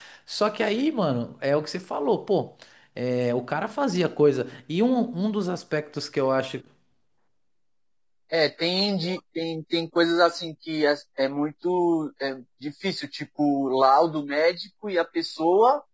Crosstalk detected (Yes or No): No